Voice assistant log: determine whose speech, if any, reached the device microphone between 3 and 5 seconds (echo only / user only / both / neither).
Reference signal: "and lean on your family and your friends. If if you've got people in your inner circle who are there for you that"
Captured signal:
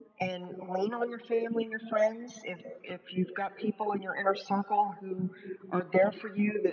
echo only